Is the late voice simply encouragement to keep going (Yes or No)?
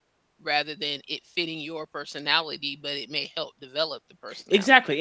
No